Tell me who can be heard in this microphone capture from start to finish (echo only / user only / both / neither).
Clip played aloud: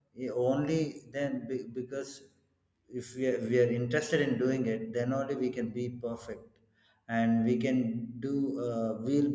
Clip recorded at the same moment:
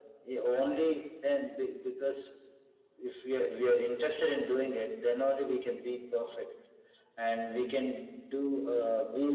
echo only